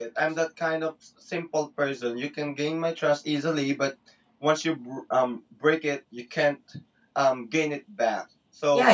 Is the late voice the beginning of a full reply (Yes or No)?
Yes